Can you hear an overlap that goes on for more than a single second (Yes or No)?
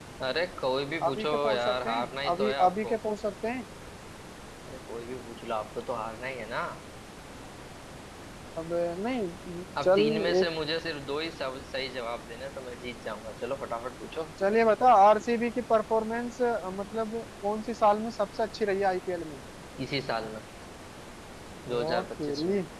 Yes